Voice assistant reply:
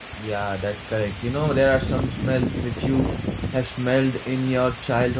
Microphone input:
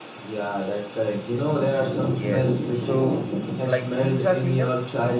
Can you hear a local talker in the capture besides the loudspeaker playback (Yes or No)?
Yes